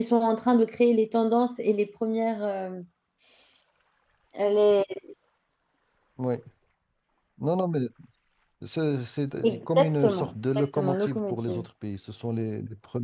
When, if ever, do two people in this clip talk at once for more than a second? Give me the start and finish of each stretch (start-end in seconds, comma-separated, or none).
9.4-11.6